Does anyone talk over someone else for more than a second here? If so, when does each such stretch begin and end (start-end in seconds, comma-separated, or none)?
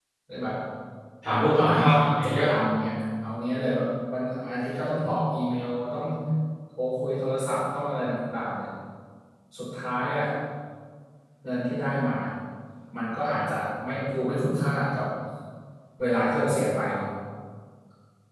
1.2-2.5